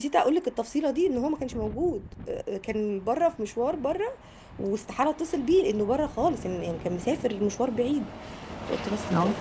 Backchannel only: Yes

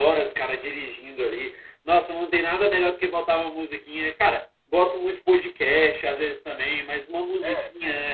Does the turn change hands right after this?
No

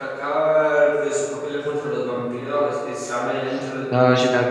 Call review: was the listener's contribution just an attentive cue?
No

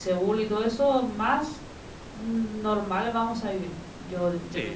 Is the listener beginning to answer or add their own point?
Yes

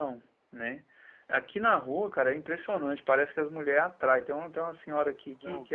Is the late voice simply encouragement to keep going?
Yes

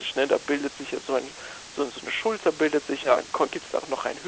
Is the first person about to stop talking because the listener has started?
No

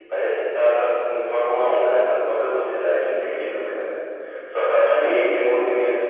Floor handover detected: No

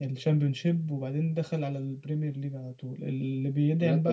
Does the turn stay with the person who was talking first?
Yes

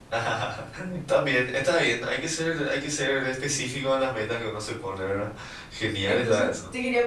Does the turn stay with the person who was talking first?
No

